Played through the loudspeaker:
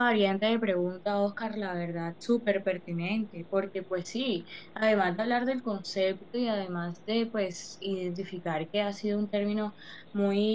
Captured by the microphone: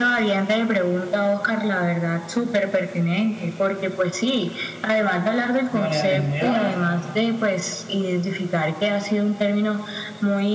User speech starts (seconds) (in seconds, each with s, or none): 5.7 s